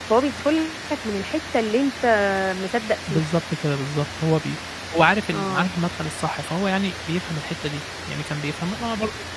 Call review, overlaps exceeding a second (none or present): none